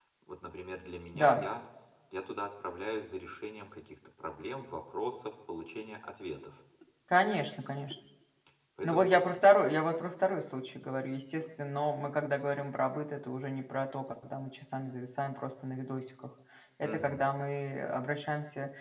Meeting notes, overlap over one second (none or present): none